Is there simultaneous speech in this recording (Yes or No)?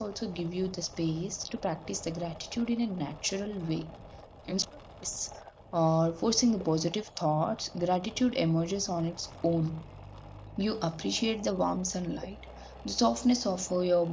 No